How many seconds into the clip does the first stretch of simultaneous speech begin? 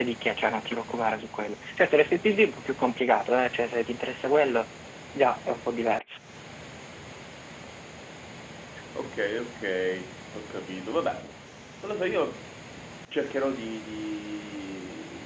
none

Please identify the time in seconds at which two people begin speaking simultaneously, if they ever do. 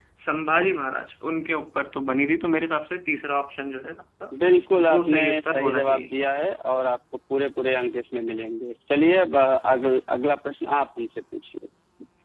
5 s

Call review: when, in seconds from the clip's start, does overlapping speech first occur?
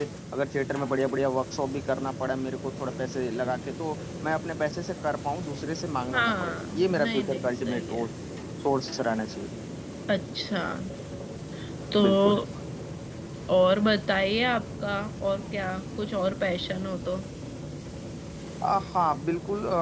6 s

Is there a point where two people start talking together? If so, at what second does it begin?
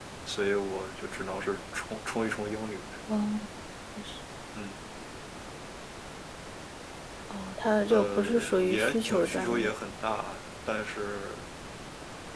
8 s

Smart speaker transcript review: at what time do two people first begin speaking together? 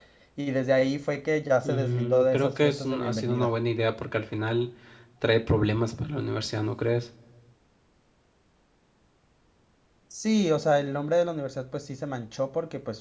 2 s

